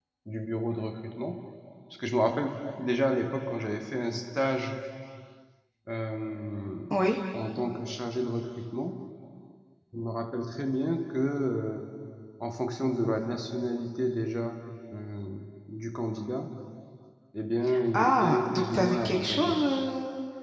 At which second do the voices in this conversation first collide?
17.9 s

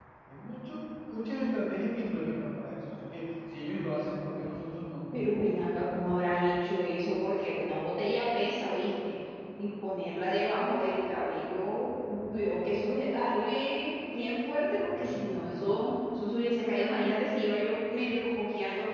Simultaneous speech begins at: none

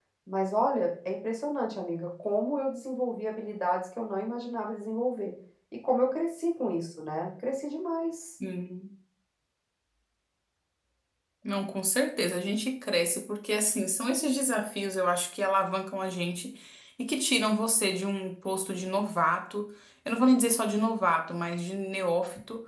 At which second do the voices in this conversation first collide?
none

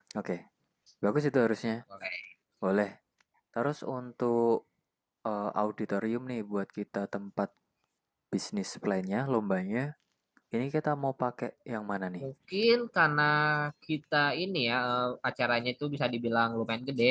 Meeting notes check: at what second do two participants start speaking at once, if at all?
none

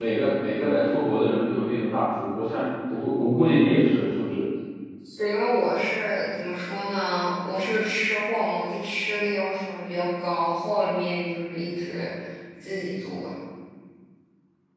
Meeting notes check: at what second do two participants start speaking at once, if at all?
none

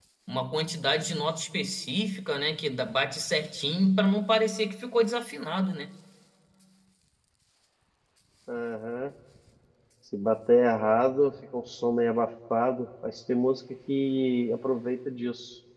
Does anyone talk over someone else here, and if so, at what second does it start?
none

